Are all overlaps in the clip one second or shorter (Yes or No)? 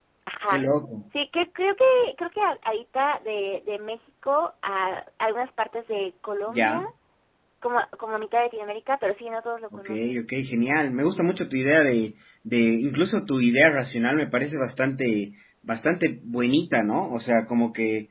Yes